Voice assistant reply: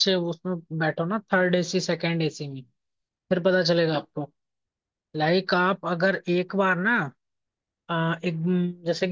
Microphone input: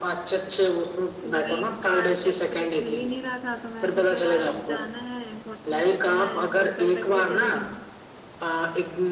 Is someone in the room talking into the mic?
Yes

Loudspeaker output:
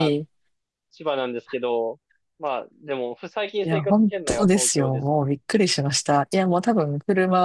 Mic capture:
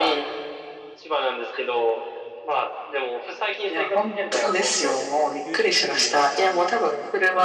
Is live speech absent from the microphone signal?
No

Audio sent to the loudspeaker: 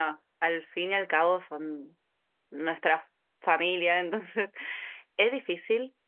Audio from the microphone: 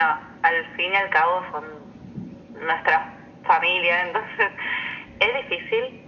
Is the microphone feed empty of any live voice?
Yes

